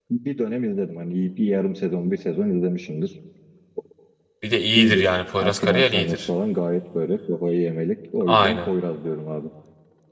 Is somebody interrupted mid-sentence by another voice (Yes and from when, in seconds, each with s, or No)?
Yes, from 4.7 s